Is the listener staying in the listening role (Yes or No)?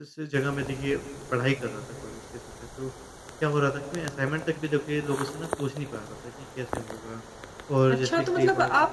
No